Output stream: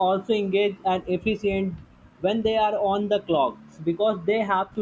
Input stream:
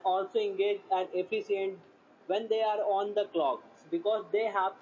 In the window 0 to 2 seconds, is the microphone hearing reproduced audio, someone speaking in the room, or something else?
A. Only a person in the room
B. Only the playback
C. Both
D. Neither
B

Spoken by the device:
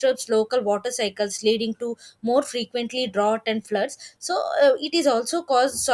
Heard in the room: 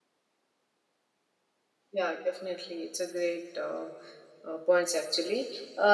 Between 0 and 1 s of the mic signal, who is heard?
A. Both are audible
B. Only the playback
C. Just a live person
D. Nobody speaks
D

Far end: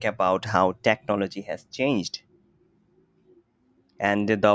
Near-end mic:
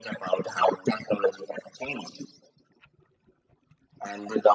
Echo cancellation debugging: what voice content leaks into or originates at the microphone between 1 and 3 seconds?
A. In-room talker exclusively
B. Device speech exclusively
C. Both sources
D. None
B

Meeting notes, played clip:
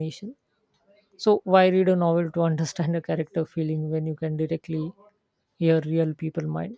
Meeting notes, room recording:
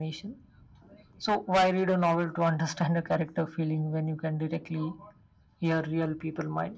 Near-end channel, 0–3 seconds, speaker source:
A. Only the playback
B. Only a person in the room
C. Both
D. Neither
A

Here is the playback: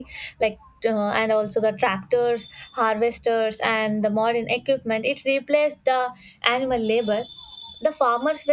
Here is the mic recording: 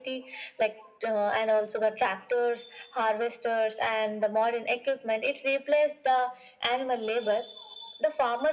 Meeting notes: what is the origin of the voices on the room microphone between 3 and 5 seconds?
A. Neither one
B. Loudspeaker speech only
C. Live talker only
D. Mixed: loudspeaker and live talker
B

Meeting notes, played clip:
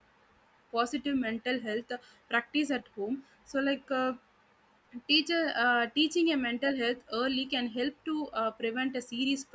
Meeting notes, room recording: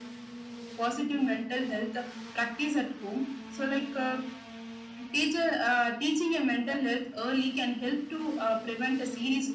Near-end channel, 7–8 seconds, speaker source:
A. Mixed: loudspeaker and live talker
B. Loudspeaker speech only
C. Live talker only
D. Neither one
B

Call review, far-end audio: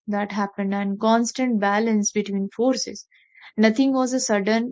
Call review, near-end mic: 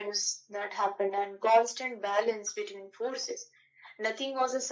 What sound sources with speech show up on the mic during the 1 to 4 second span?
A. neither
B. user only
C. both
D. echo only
D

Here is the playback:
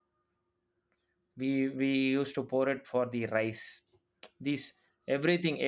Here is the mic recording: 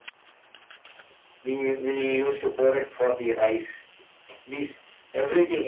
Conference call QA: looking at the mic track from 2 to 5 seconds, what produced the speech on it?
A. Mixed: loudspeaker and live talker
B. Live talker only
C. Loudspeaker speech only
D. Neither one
C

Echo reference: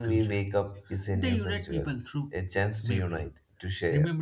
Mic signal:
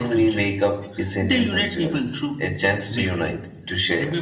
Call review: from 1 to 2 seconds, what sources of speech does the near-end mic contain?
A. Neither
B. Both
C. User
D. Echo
D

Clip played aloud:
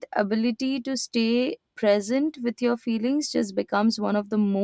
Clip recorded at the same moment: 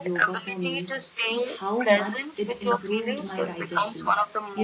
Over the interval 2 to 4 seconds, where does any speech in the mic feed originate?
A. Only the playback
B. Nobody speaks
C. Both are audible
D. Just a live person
C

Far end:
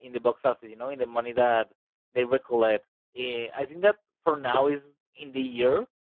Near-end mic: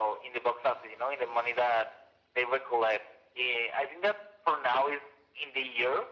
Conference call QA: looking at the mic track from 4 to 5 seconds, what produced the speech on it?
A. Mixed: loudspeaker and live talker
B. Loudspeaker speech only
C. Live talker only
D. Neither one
B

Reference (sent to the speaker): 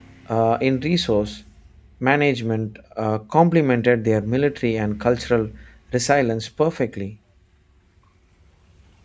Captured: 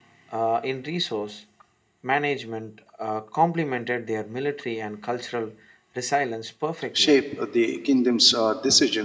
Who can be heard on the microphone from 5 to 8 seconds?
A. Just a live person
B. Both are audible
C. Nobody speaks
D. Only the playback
B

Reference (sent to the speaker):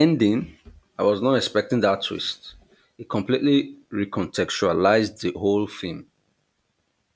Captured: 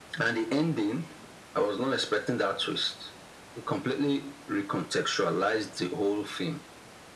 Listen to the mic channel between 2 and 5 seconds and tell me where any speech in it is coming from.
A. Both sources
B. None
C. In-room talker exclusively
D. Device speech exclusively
D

